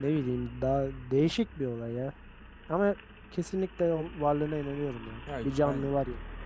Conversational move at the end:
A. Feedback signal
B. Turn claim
B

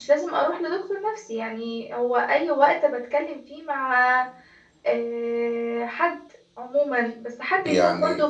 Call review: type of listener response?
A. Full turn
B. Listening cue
B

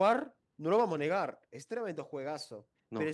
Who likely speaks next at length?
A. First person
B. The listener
A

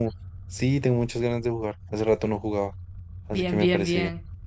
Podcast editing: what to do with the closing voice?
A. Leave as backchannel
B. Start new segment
B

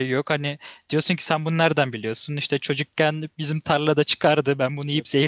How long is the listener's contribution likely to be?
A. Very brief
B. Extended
A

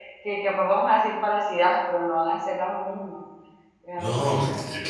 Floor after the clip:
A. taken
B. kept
A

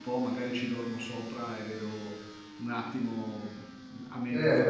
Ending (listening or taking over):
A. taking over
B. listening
A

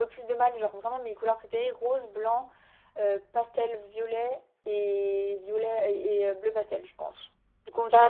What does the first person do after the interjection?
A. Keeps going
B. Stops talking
B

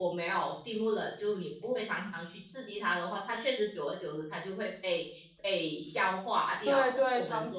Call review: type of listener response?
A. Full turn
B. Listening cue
A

